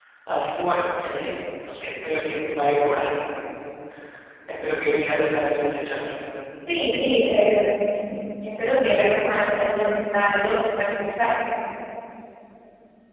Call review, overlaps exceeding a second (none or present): none